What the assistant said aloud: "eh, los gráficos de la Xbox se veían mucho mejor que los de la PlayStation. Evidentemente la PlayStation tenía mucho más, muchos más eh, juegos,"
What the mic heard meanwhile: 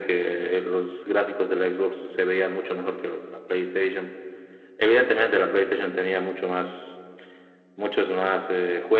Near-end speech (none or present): none